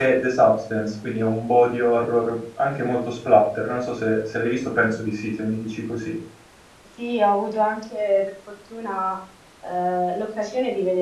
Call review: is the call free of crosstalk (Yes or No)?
Yes